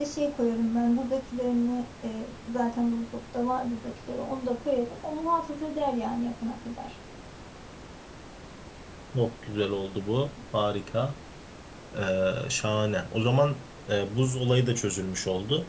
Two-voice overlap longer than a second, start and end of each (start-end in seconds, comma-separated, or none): none